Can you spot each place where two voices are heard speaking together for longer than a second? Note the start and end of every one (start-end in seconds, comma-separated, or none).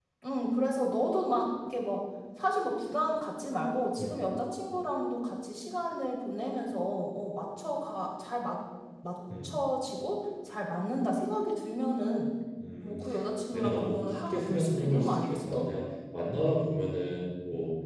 13.5-15.7